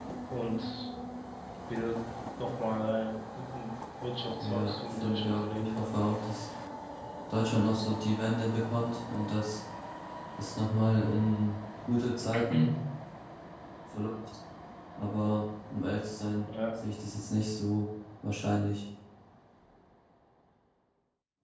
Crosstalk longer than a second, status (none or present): present